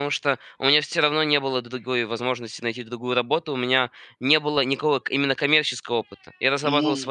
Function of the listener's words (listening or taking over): listening